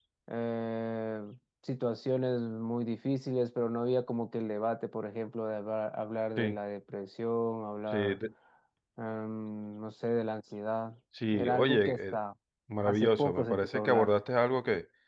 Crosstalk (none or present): present